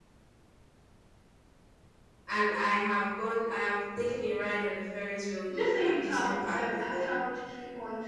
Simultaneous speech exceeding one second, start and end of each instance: 5.5-7.1

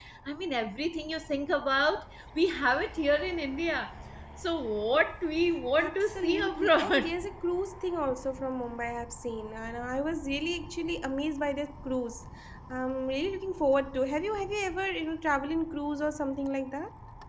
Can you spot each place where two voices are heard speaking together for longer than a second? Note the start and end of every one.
5.8-7.1

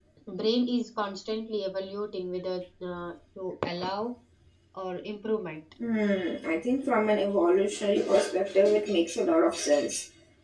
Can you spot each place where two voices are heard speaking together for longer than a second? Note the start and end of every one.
none

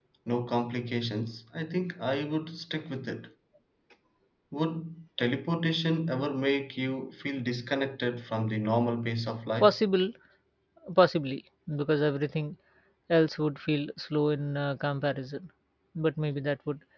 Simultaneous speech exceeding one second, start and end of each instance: none

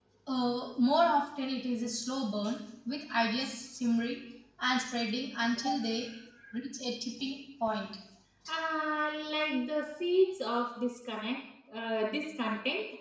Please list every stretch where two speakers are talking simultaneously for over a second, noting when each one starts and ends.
none

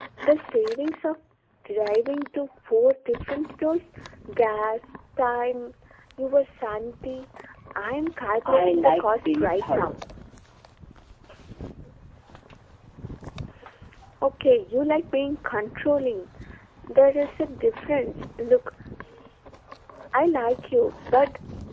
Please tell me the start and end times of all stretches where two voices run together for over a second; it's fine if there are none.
8.5-9.9

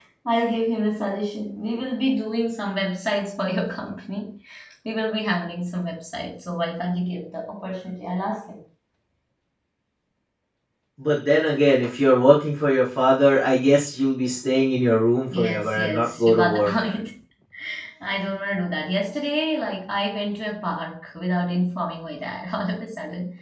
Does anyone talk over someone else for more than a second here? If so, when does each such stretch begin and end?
15.3-16.7

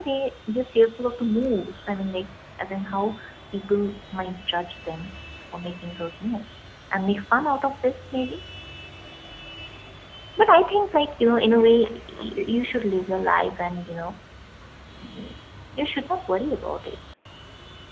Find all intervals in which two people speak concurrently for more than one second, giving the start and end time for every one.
none

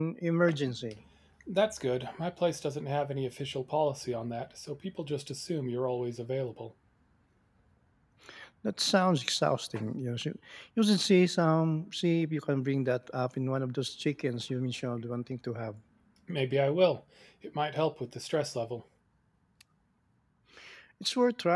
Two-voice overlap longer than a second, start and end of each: none

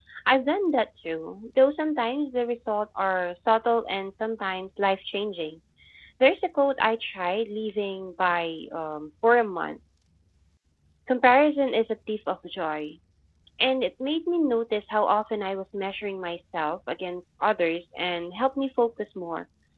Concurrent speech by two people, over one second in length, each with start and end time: none

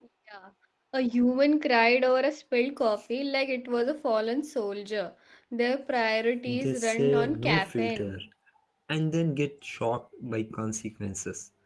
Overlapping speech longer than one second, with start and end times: 6.5-8.2

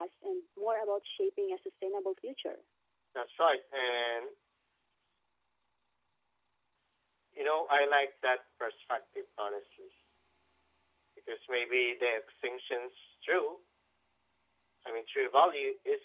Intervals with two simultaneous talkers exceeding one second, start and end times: none

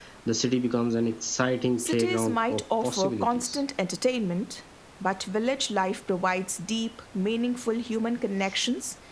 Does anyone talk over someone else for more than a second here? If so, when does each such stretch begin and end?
1.8-3.6

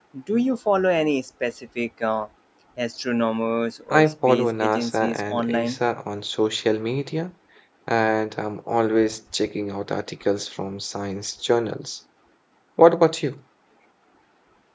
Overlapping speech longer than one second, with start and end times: 3.9-5.8

